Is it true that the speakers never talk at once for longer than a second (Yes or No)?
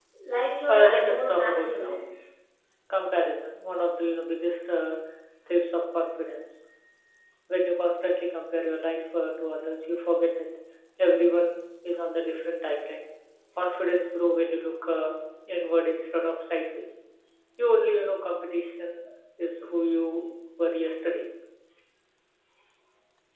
No